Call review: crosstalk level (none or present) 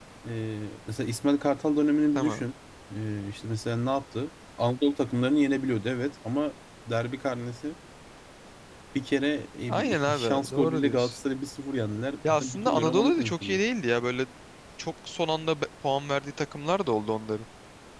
present